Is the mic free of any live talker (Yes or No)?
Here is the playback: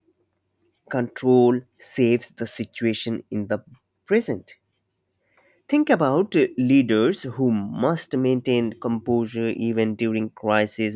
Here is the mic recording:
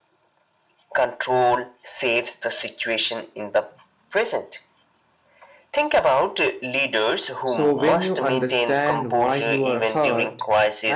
No